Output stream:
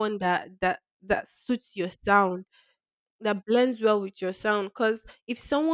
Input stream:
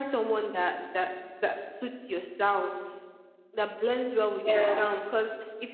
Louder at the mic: user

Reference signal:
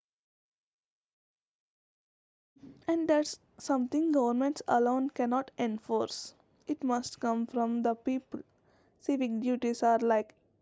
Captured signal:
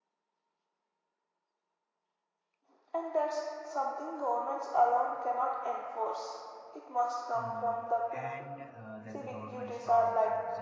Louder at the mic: echo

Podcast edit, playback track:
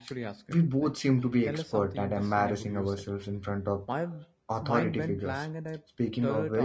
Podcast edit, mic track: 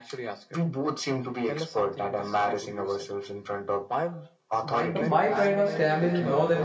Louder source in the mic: user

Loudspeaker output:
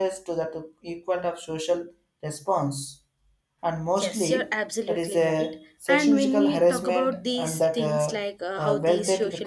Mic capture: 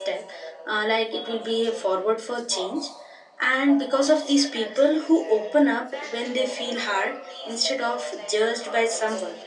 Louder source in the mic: user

